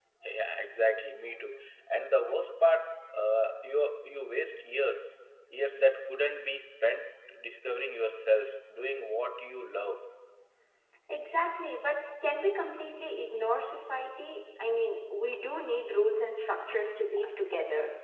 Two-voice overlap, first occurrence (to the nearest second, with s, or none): none